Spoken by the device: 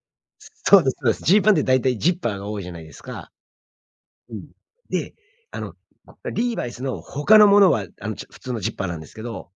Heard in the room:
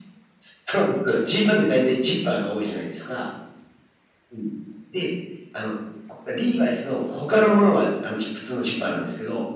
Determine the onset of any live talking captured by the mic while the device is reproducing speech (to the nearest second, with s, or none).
none